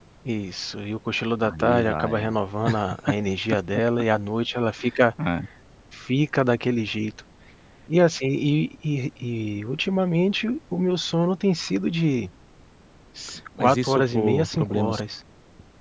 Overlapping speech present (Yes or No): Yes